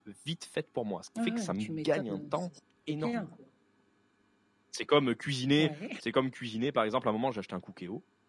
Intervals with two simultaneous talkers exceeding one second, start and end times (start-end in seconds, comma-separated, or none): 1.2-2.5